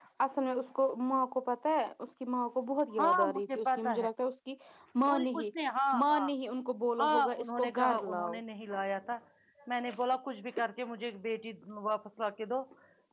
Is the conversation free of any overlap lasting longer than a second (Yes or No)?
No